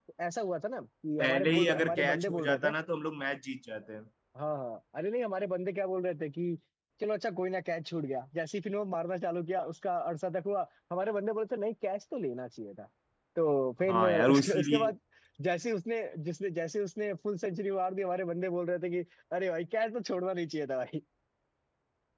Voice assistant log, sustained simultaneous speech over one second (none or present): present